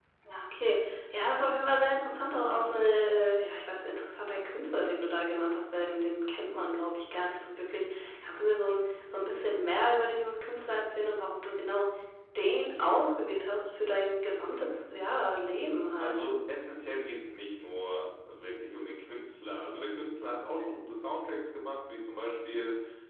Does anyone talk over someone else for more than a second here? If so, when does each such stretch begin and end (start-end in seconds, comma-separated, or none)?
none